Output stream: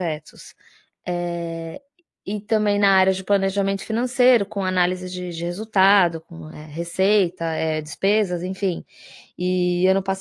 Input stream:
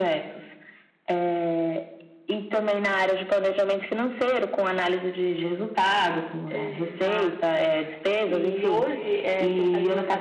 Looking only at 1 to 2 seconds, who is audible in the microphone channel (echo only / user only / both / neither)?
echo only